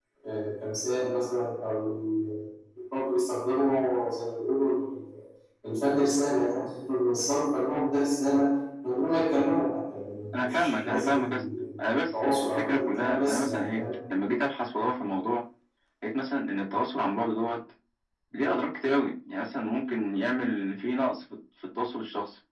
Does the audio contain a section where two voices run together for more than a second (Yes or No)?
Yes